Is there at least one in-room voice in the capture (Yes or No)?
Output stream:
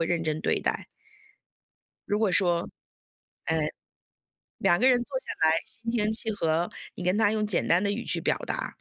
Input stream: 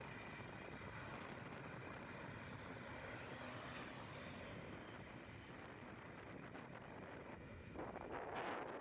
No